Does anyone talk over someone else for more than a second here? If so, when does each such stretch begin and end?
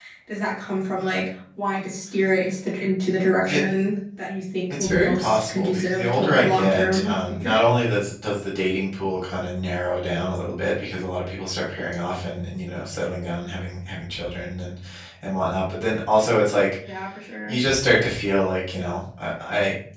4.7-7.6

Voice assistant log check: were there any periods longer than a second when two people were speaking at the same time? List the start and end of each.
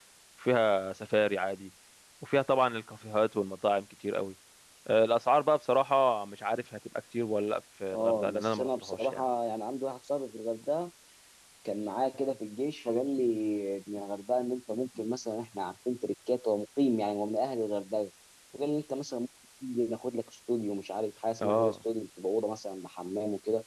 7.9-9.2

